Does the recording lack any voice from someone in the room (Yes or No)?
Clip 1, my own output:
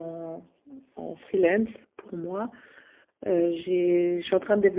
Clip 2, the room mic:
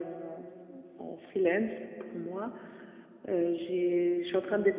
Yes